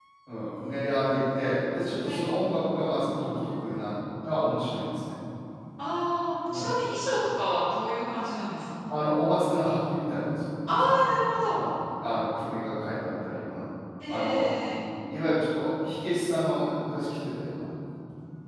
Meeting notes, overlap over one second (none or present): none